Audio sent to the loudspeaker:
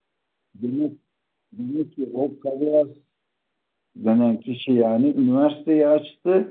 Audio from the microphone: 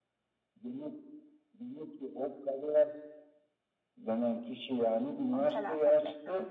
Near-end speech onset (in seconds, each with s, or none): 5.3 s